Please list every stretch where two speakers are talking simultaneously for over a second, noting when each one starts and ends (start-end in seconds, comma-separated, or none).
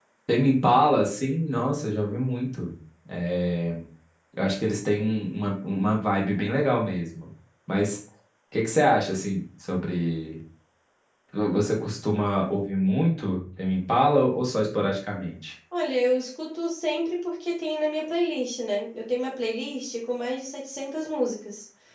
none